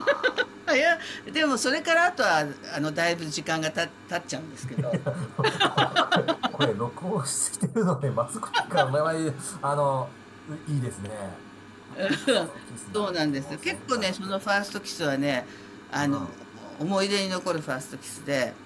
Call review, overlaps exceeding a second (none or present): present